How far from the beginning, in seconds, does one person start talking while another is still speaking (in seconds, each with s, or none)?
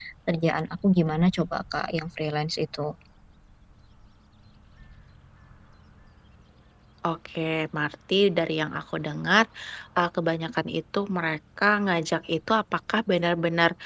none